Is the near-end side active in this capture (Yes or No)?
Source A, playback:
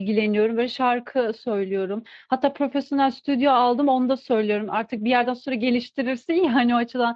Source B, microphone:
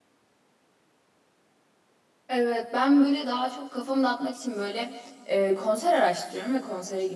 Yes